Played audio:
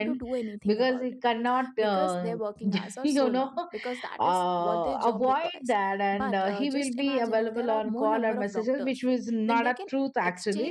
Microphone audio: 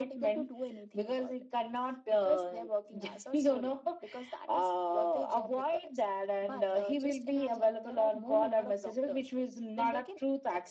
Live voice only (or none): none